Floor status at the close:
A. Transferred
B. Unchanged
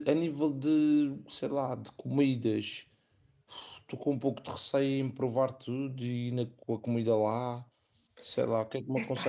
B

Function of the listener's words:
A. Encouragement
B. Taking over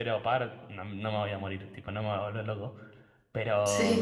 A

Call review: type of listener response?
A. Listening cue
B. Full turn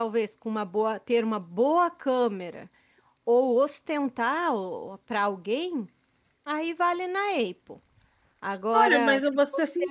B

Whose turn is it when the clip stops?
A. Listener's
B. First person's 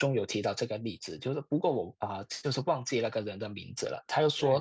B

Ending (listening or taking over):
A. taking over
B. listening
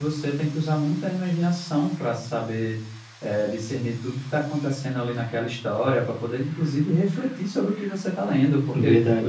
B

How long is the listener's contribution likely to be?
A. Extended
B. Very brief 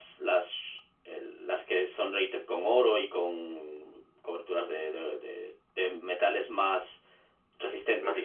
B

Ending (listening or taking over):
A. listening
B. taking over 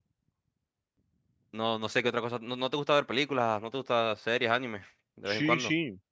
B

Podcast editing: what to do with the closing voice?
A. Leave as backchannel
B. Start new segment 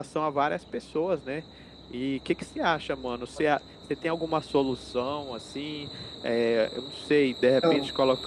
A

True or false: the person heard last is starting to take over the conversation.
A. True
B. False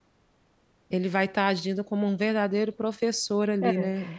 A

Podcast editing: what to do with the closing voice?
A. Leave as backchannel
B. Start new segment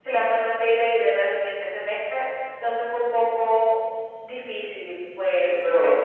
B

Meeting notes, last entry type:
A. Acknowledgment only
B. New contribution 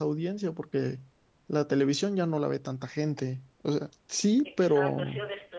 B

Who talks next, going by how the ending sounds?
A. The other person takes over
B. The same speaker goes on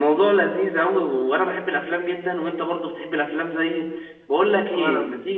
B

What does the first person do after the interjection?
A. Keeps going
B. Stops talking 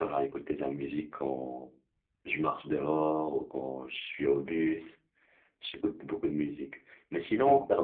A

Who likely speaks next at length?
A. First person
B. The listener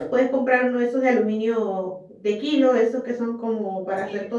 A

